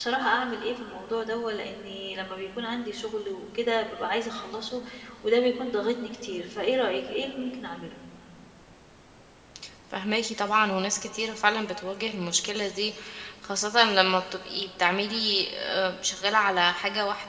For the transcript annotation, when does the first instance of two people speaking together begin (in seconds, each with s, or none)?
none